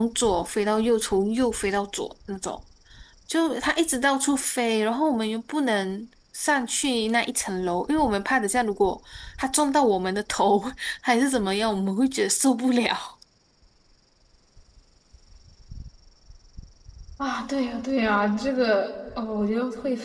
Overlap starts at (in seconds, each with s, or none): none